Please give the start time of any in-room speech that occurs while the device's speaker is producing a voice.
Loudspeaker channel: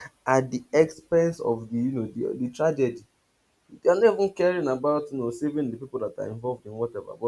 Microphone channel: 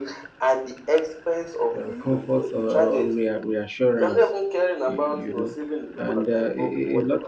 1.8 s

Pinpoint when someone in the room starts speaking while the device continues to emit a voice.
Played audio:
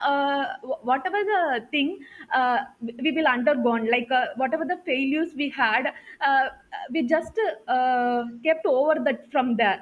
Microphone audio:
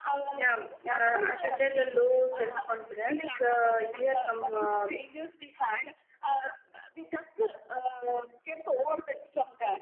0.3 s

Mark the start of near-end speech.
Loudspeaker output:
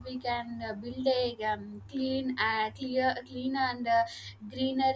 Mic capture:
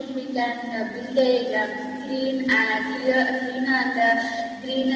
none

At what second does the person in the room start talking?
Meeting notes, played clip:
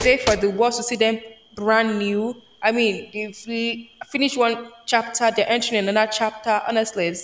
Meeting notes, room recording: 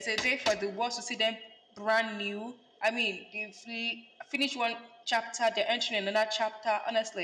none

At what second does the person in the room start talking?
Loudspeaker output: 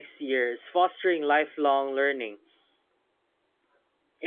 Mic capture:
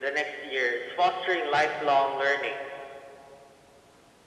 none

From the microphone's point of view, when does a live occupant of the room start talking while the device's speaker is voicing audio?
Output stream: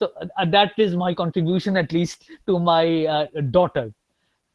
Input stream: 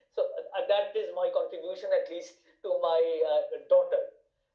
none

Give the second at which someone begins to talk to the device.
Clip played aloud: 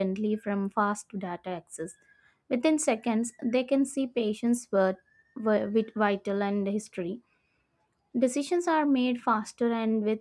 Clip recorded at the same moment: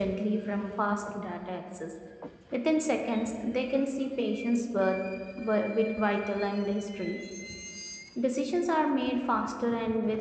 none

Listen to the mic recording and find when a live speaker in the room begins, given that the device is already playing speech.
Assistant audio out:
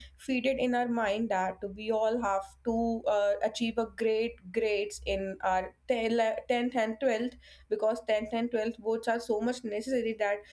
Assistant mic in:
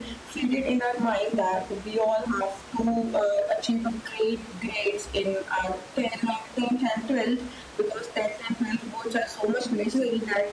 none

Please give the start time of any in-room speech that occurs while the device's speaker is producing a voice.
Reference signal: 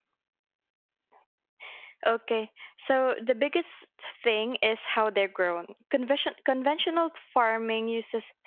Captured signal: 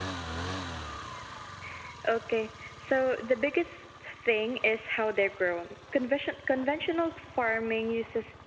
none

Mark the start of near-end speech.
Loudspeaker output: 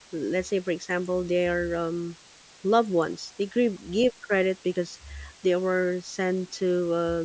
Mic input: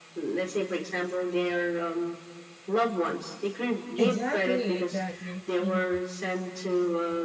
4.0 s

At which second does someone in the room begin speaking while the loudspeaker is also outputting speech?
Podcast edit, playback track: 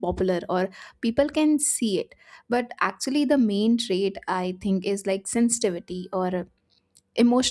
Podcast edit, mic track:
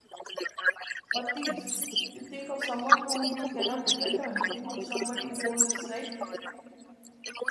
1.1 s

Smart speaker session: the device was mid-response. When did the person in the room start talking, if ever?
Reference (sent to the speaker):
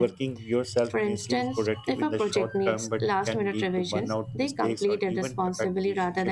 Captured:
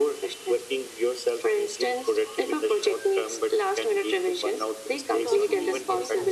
5.2 s

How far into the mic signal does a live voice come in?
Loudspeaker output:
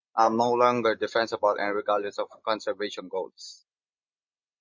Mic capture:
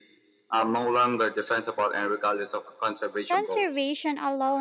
3.3 s

